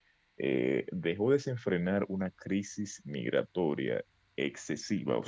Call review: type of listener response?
listening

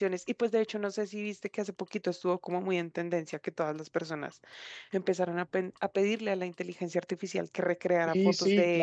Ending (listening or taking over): taking over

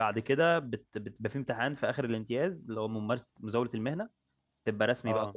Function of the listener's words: listening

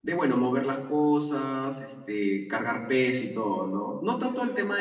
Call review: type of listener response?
taking over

